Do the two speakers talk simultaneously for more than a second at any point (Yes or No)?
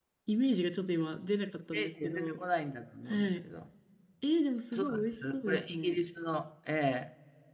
Yes